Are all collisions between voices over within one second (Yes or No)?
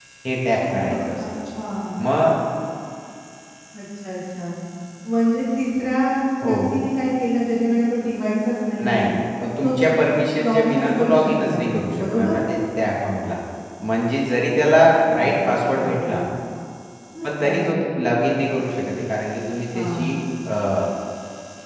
No